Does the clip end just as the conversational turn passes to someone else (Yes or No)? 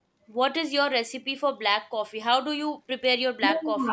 Yes